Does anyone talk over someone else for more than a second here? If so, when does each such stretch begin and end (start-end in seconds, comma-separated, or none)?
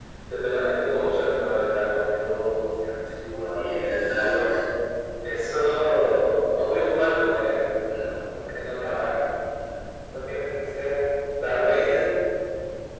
none